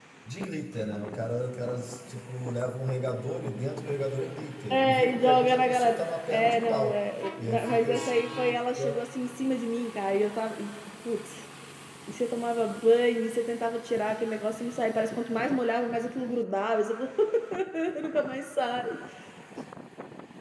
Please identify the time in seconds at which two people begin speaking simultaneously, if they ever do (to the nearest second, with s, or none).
5 s